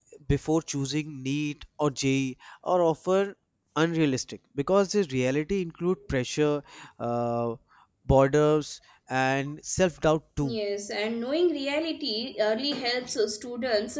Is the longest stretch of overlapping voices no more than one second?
Yes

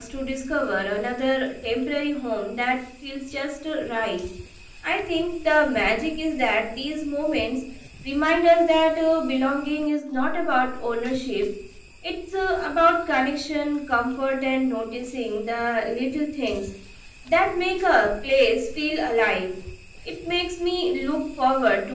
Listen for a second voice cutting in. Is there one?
No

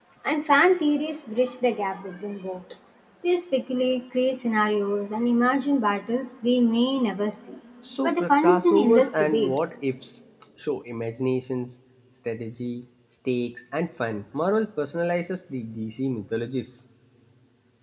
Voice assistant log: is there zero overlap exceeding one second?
No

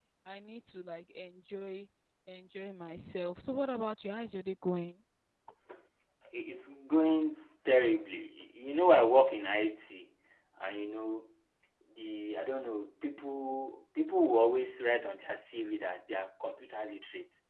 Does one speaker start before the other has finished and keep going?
No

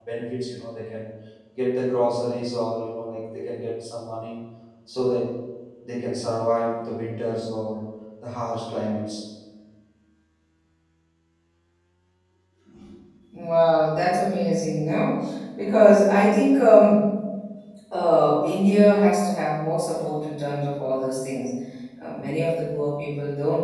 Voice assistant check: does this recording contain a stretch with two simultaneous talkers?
No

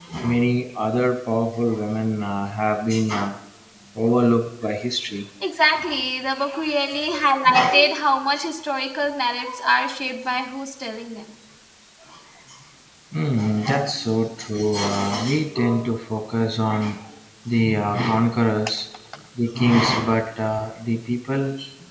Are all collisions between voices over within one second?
Yes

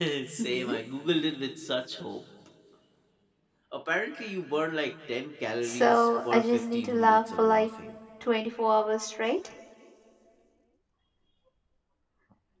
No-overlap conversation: No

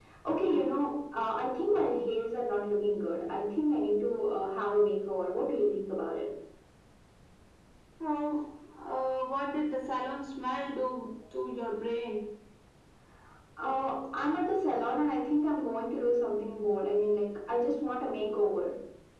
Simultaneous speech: No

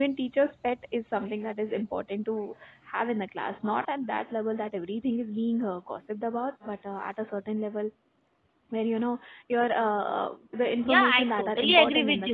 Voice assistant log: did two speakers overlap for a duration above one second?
Yes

